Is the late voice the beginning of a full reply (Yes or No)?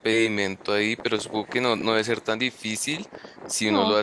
No